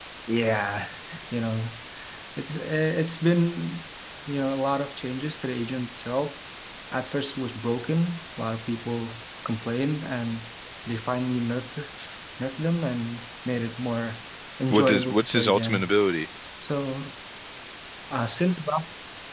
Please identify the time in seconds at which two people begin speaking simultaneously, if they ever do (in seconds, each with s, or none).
14.7 s